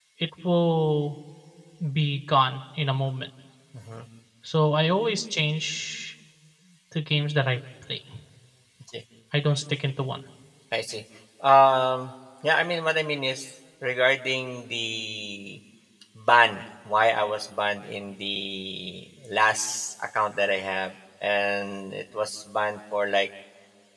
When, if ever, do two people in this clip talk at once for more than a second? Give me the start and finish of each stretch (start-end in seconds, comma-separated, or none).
none